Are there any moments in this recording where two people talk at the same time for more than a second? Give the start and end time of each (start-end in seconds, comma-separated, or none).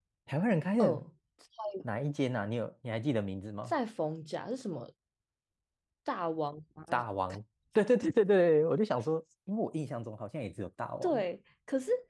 none